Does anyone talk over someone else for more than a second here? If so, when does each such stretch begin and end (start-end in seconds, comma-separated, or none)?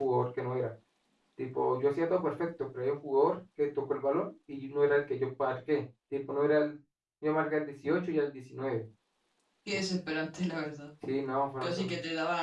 none